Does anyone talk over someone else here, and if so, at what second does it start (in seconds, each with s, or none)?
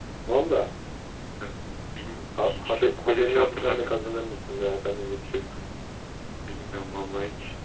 2.4 s